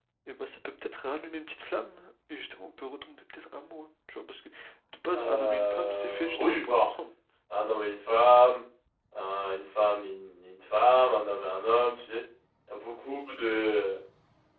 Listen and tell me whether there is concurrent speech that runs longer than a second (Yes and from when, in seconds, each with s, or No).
Yes, from 5.2 s